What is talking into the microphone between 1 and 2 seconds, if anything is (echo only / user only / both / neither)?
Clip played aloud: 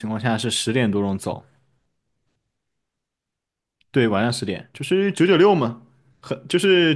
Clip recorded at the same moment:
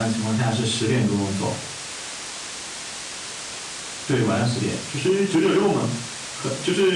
echo only